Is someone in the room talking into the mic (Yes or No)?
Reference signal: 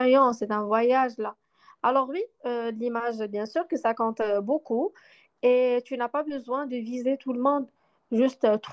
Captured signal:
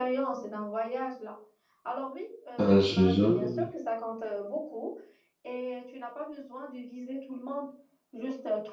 Yes